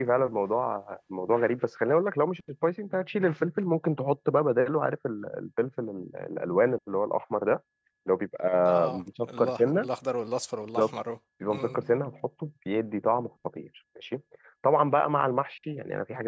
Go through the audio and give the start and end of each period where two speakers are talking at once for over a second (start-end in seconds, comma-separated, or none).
8.7-9.9